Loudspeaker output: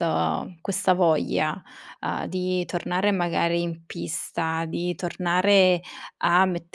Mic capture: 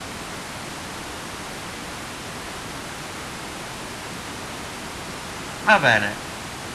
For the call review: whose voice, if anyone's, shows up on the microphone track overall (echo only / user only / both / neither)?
user only